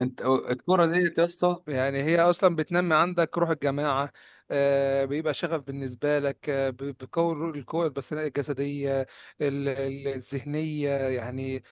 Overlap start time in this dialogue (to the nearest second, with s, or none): none